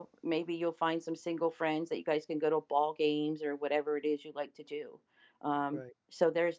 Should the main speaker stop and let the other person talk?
No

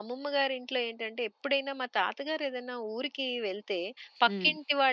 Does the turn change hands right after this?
No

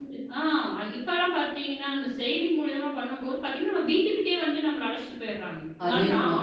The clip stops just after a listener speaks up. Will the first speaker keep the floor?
Yes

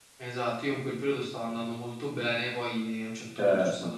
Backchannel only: Yes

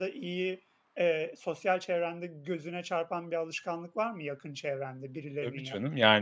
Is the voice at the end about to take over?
Yes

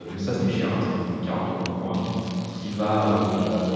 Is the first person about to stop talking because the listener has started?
No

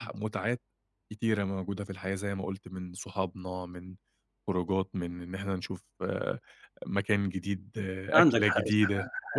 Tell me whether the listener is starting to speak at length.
Yes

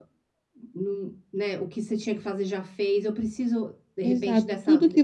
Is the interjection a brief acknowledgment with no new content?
No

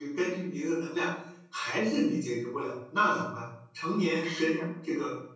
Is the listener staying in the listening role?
Yes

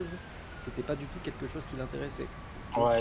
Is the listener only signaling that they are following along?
No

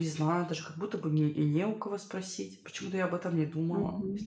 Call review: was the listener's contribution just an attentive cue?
No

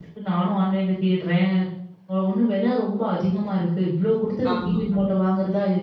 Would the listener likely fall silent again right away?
Yes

